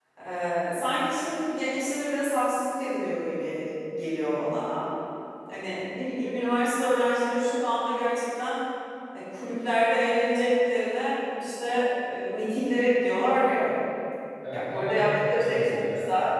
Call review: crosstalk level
present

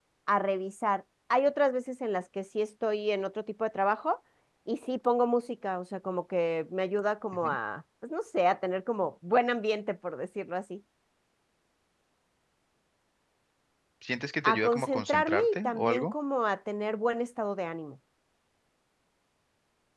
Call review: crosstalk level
present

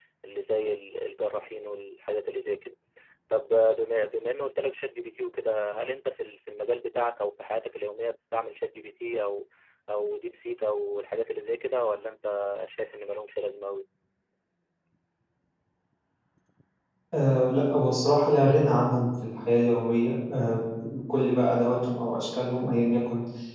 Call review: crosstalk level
none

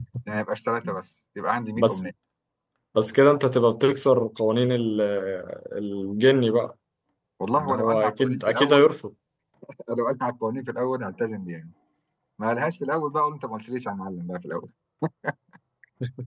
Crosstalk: present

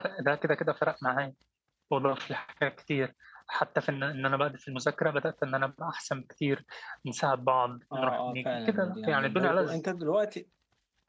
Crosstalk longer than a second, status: present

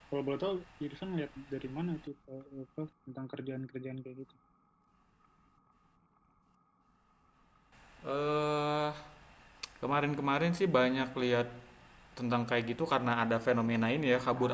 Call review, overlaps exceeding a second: none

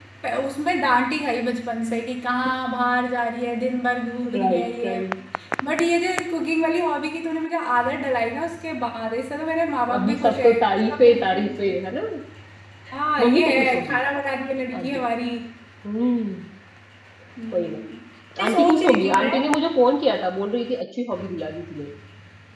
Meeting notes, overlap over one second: present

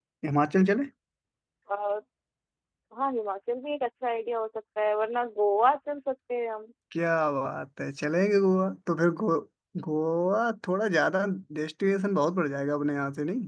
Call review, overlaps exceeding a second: none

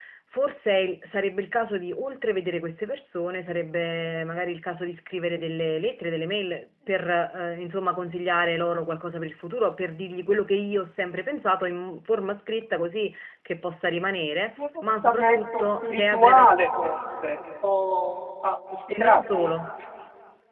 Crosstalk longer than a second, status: present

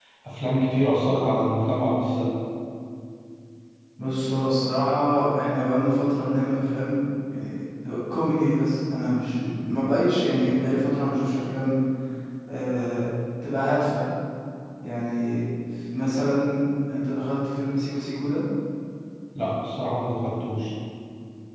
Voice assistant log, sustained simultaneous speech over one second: none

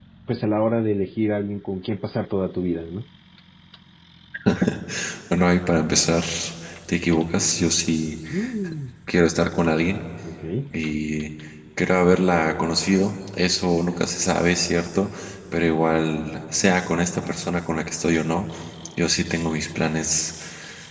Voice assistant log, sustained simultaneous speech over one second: none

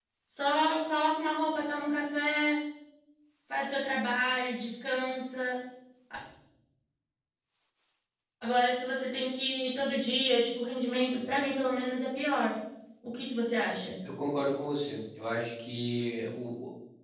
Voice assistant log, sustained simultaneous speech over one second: none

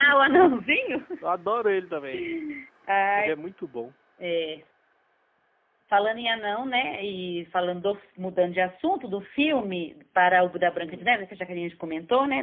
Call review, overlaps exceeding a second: none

